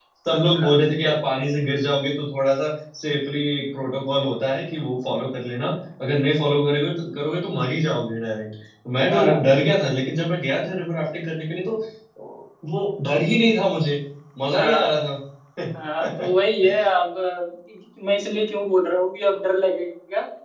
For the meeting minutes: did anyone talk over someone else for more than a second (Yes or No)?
No